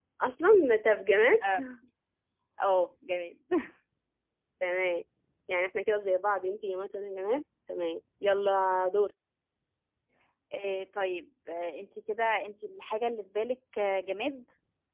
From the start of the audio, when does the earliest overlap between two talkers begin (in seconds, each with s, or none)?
none